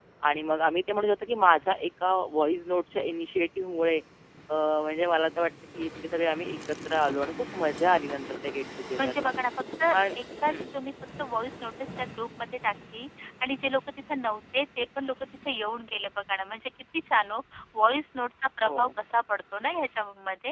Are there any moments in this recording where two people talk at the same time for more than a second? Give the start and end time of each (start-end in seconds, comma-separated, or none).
none